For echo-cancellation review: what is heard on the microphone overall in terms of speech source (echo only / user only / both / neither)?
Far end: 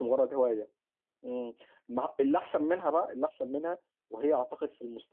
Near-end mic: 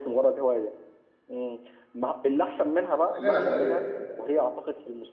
both